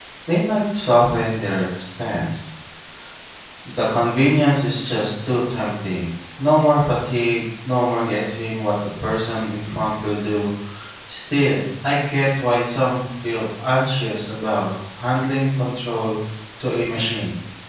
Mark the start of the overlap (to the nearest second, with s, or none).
none